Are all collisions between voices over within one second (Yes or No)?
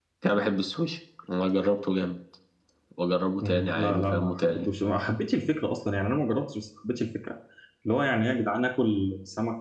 No